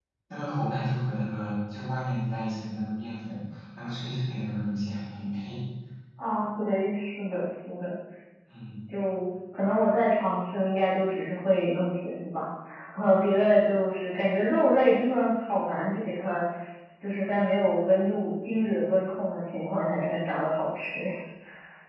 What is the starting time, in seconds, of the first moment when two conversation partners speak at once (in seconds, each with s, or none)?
none